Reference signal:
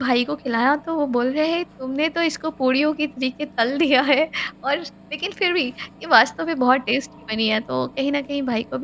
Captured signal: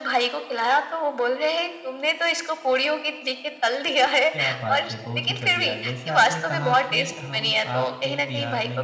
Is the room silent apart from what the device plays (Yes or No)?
No